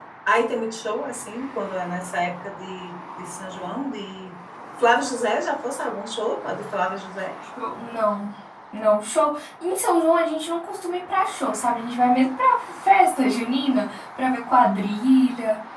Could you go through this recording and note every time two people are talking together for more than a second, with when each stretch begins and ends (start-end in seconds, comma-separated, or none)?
none